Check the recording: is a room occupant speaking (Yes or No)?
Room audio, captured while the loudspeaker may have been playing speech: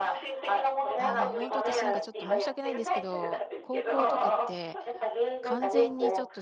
Yes